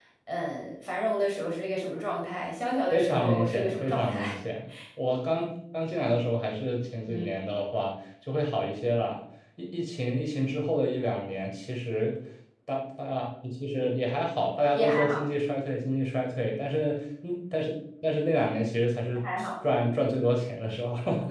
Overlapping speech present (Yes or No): Yes